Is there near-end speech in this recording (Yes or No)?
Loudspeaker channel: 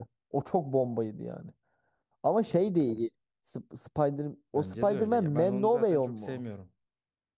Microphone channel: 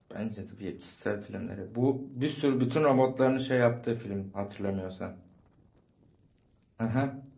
Yes